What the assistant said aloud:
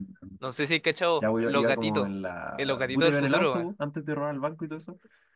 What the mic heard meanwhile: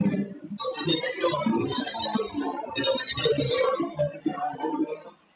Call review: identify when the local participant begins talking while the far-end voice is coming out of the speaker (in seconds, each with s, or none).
none